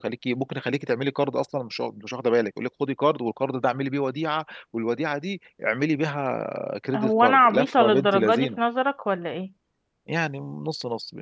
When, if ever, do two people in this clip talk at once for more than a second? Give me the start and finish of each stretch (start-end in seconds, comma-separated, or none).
7.0-8.6